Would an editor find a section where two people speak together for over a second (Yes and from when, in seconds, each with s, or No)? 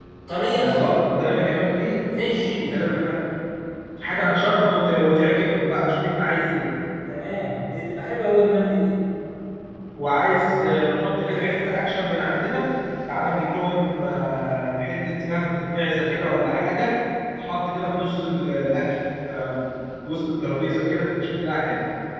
No